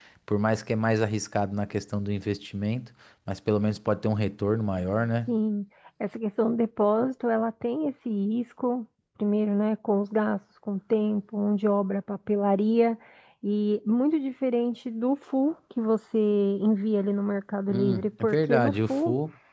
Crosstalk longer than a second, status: present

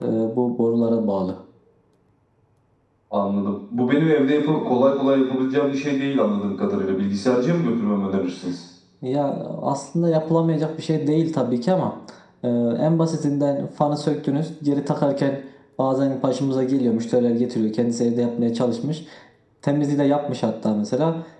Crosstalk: none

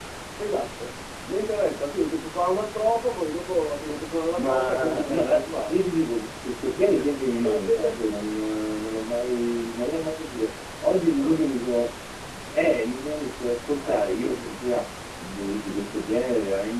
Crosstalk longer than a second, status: present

